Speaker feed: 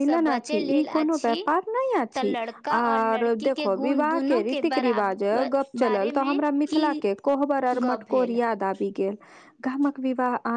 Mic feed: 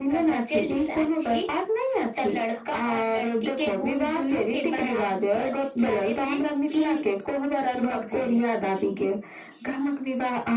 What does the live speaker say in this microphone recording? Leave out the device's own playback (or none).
none